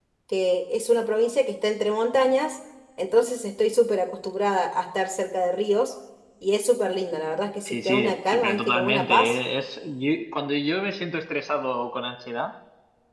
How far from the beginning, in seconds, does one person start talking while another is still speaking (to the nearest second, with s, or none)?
8 s